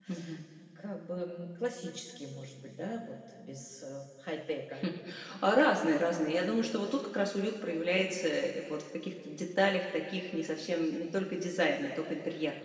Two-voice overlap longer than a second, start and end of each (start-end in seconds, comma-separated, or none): none